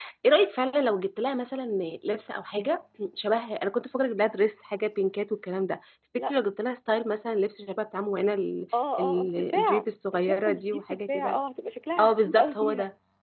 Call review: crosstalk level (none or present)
present